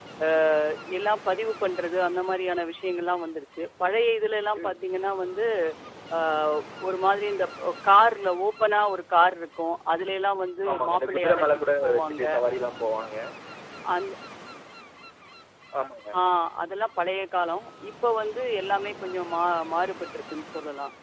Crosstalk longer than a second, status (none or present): present